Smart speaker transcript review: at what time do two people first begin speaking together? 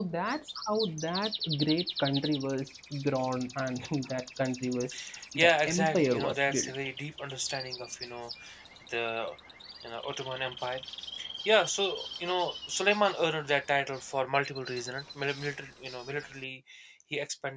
5.4 s

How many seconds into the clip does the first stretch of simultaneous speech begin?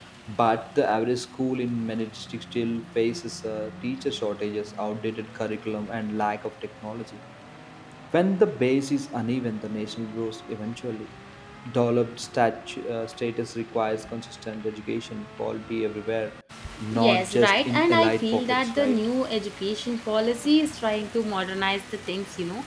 16.9 s

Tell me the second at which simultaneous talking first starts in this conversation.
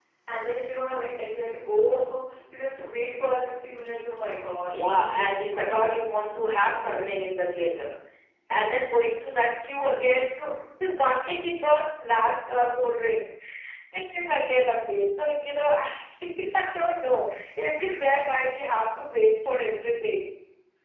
4.7 s

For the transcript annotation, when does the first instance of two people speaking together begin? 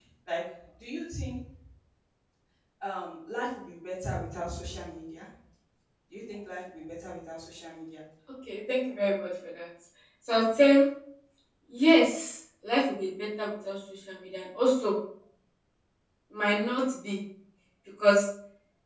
none

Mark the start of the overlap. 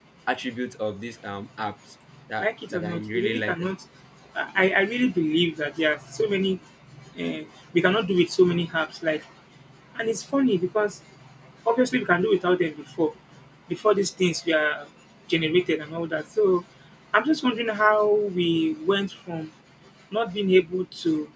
2.4 s

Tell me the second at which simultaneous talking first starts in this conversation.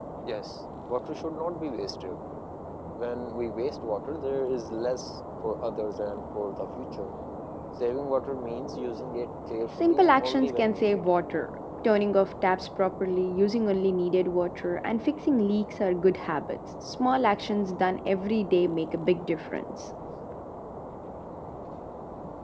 9.8 s

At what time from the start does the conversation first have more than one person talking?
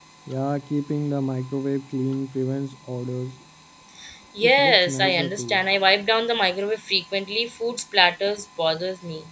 4.4 s

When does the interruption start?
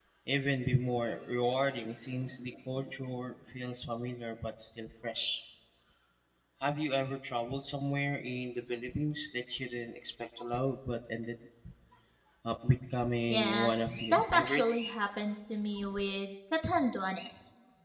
13.3 s

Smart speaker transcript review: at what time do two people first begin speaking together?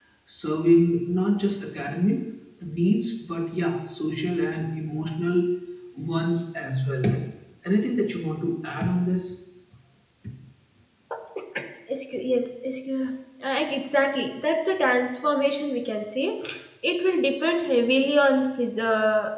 none

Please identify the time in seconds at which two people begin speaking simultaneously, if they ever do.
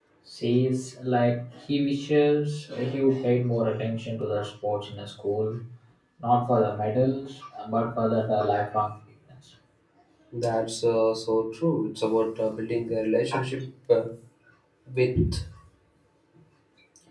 none

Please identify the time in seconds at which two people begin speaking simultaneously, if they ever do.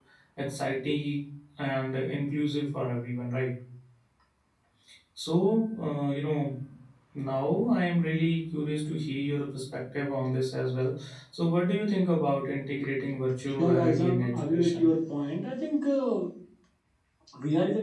13.6 s

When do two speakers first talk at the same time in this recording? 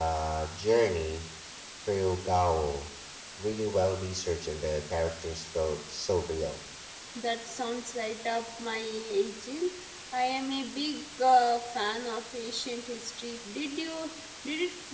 none

